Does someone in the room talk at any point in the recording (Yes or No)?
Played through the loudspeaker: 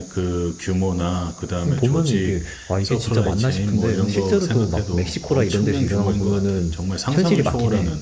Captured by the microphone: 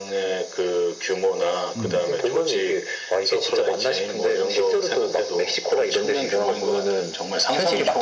Yes